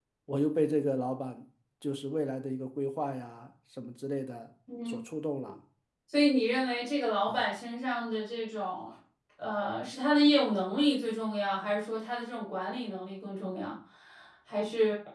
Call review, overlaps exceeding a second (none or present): none